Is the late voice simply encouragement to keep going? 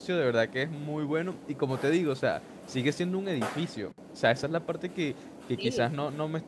Yes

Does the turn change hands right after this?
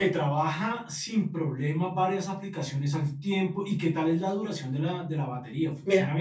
Yes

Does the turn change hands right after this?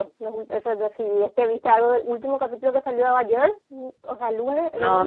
Yes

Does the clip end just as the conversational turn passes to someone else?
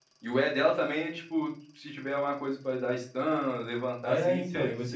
Yes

